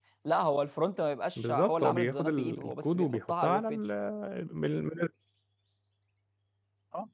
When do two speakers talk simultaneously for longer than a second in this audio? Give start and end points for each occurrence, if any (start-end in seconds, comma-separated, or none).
1.4-3.8